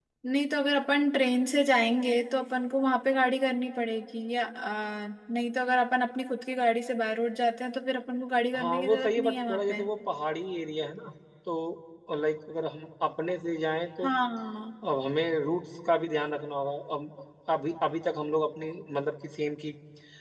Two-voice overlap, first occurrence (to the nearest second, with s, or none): 9 s